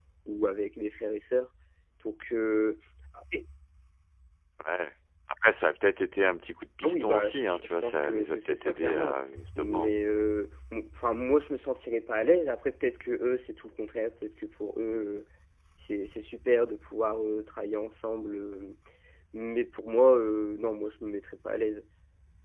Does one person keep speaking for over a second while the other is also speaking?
Yes, from 6.8 s

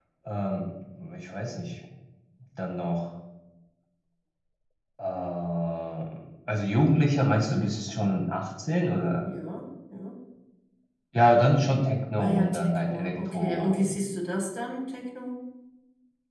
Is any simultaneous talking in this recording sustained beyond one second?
Yes, from 12.2 s

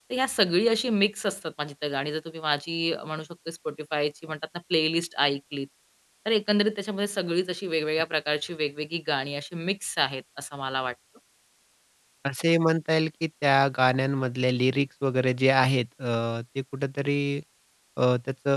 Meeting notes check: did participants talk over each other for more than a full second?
No

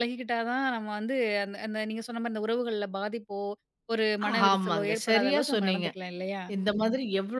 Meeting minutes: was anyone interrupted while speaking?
Yes, from 4.5 s

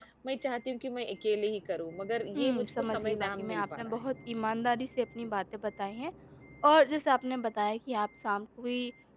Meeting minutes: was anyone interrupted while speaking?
Yes, from 2.3 s

